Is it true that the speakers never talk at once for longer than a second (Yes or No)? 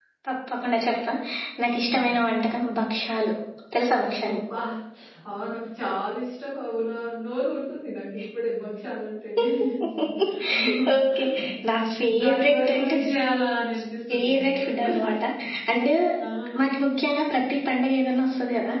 No